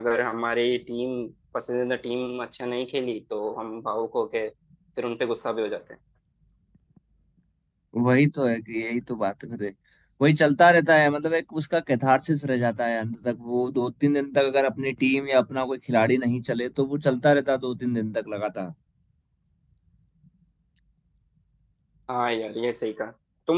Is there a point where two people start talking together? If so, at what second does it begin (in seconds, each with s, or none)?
none